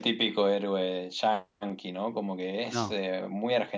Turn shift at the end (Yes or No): No